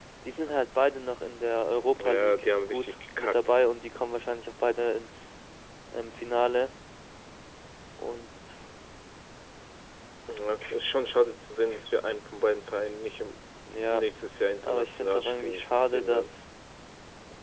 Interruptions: present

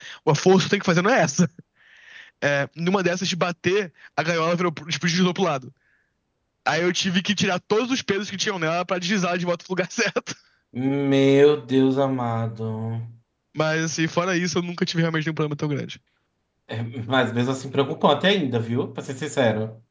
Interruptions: none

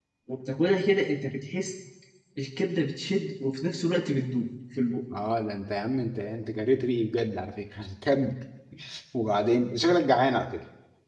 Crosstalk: none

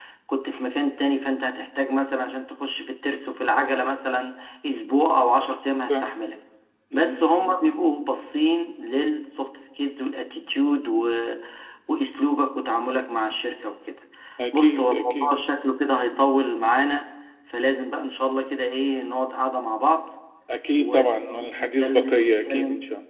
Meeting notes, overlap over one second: present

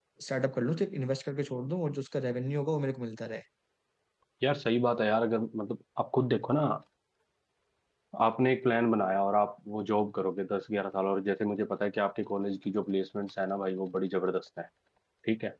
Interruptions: none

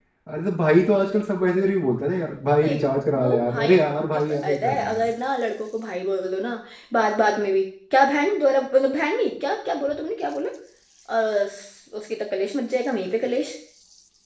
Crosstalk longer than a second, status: present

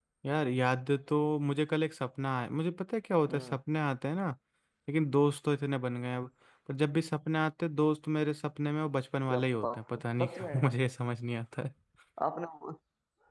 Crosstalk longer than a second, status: present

